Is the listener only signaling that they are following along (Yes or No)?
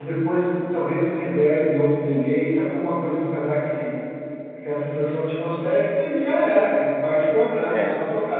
Yes